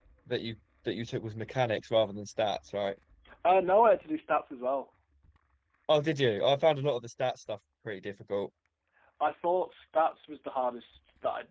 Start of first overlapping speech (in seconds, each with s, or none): none